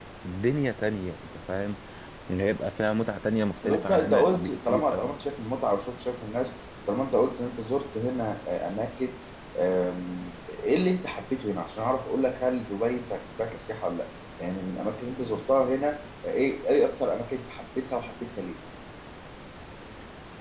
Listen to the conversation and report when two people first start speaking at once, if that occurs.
3.6 s

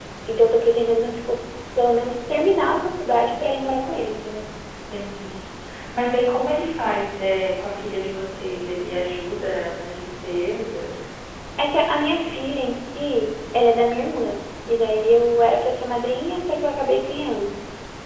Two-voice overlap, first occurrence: none

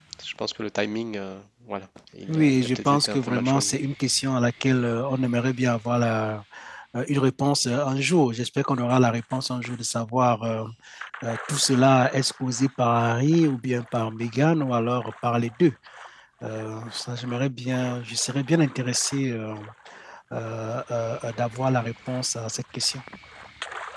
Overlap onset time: 2.3 s

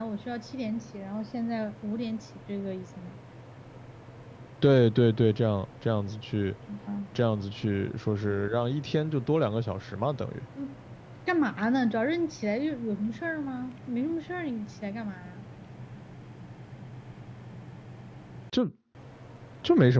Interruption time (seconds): none

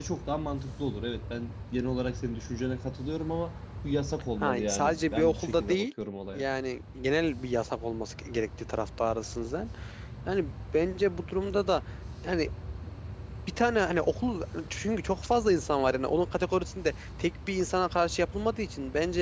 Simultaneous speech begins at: 4.4 s

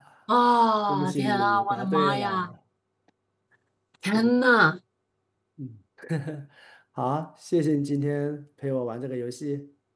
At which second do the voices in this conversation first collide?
0.9 s

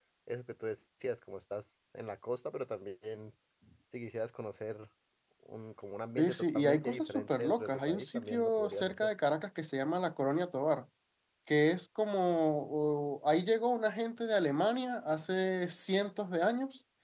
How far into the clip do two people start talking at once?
6.2 s

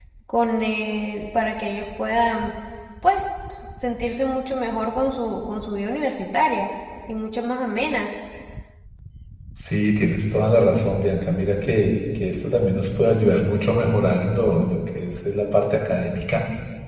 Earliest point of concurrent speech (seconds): none

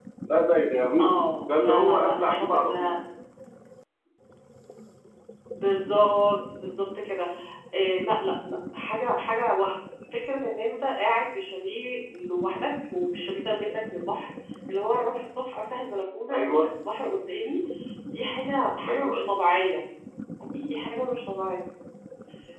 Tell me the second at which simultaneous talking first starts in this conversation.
1.6 s

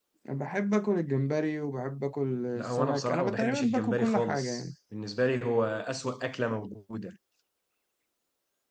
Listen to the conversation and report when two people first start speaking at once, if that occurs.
2.5 s

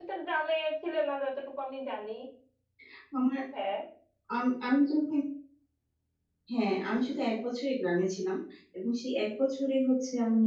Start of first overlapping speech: none

